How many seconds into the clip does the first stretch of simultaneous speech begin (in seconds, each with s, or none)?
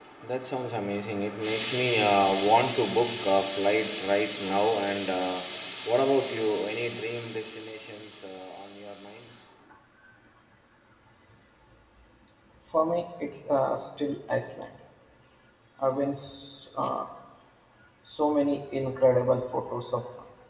none